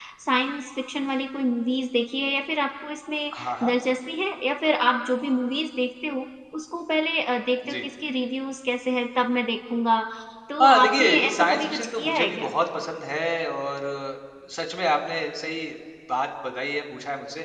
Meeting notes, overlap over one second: present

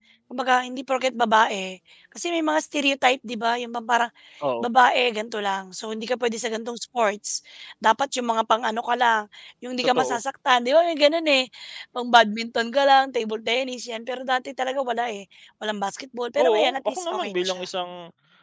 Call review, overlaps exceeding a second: present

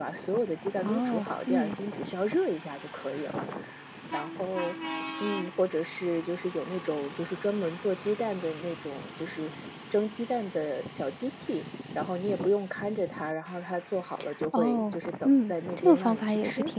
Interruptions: present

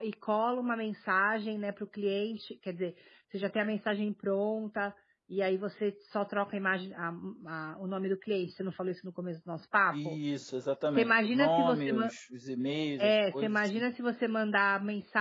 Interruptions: present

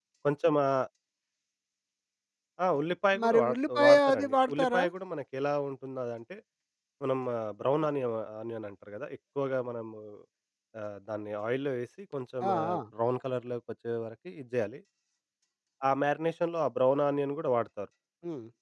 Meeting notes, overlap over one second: present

